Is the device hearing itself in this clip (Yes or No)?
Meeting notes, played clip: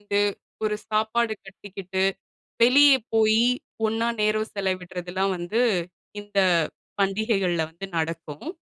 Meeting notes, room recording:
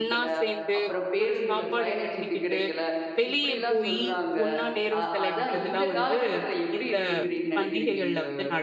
Yes